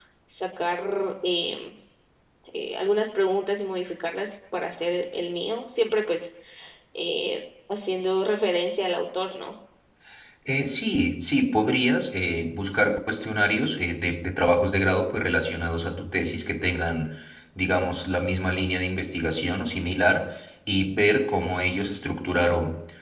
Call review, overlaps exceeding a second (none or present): none